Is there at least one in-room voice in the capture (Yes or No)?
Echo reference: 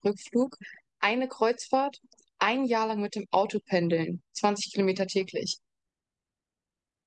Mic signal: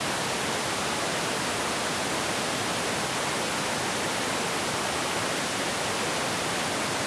No